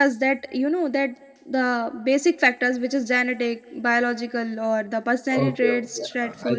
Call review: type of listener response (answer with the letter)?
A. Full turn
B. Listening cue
A